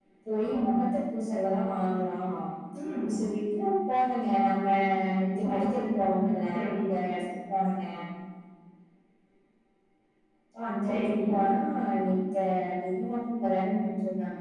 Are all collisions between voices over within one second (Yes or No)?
No